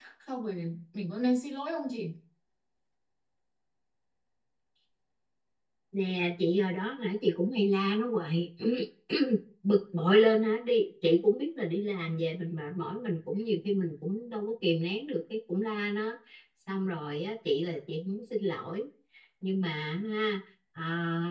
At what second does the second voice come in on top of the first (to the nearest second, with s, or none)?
none